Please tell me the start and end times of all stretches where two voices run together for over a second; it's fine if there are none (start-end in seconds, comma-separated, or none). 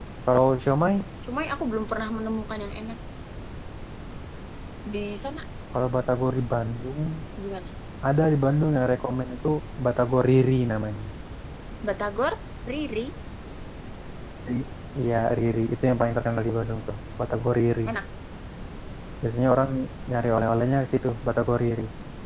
none